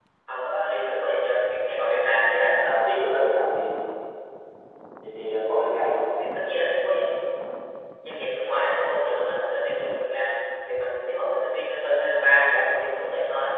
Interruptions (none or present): none